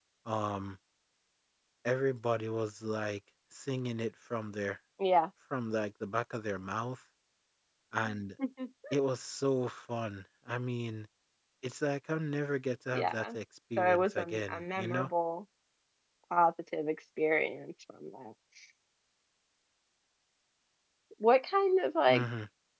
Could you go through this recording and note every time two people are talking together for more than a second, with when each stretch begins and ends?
13.8-15.1

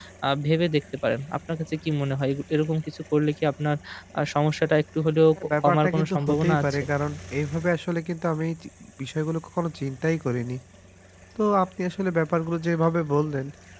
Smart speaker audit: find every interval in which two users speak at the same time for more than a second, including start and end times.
5.4-6.8

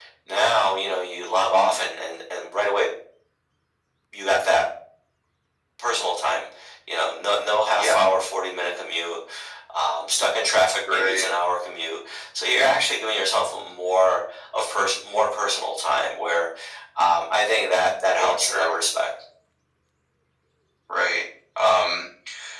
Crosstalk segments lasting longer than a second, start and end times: none

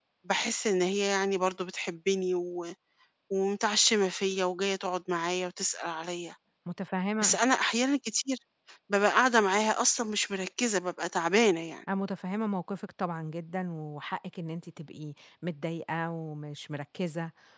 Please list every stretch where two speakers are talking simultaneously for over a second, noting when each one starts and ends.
none

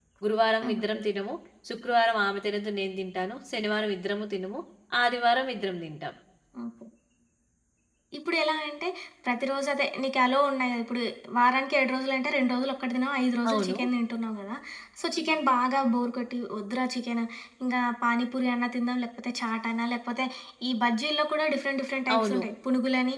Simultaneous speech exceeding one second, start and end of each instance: none

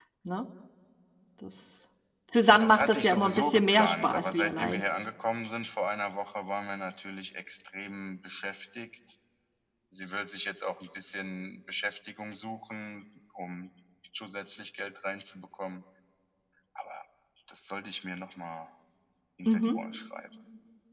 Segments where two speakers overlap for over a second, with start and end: 2.6-4.8

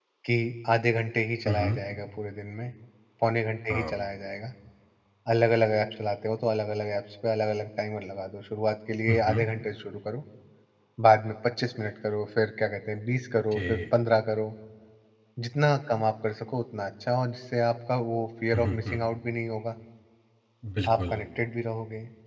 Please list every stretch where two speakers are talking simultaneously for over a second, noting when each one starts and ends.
none

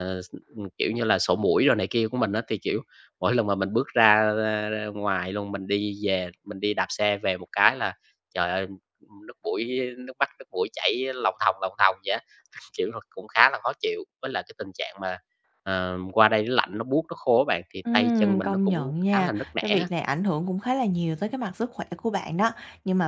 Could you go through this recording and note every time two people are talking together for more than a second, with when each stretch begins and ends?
17.9-19.9

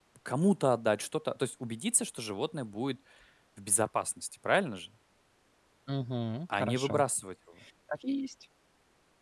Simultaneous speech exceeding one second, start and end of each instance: none

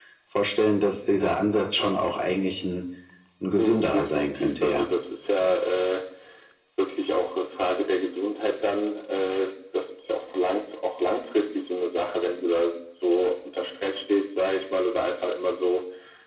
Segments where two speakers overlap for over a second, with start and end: 3.6-4.8

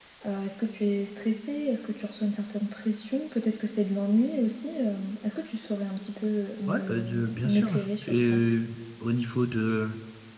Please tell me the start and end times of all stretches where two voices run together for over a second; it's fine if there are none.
6.7-8.4

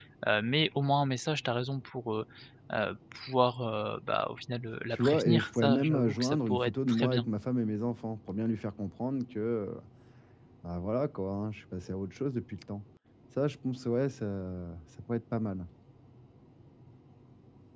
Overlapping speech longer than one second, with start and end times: 4.9-7.3

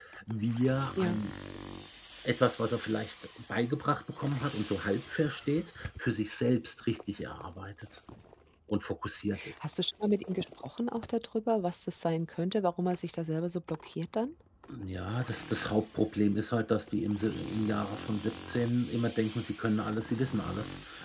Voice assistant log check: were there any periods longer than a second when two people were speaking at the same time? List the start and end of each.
none

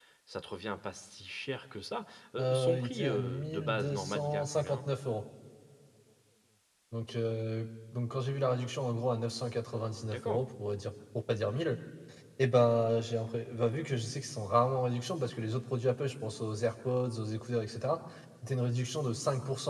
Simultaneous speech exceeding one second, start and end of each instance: 2.4-4.8

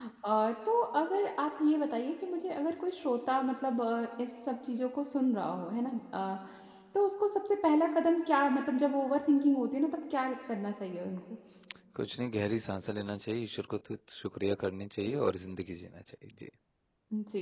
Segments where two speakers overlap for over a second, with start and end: none

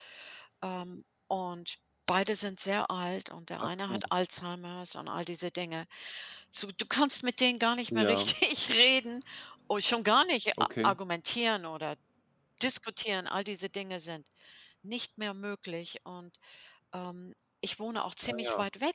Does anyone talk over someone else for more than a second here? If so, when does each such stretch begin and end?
none

